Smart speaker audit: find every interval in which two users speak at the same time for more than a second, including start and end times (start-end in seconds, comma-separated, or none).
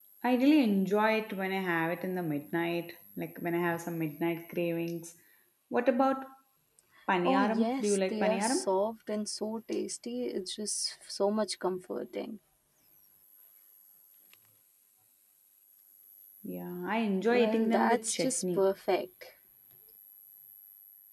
7.2-8.7, 17.3-18.6